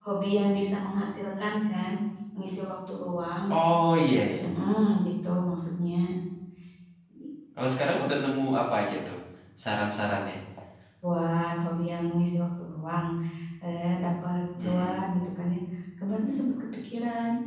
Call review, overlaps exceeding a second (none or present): none